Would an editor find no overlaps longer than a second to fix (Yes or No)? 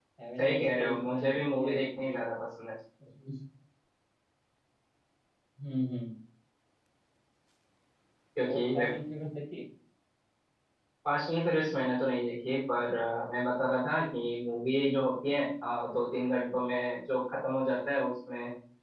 No